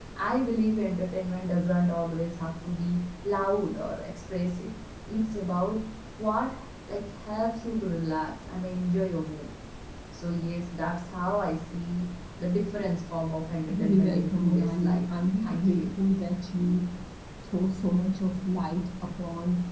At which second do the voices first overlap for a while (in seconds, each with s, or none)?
13.7 s